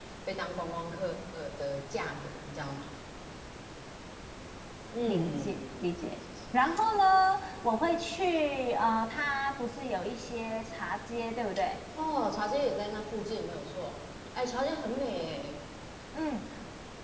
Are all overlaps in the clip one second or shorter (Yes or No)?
Yes